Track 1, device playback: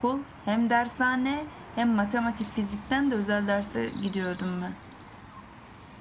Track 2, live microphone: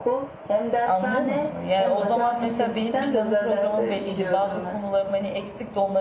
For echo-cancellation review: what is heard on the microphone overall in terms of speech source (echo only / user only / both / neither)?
both